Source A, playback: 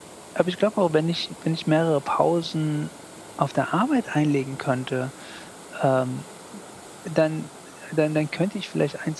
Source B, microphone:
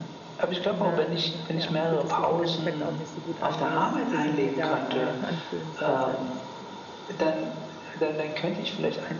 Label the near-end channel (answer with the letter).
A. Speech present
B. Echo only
A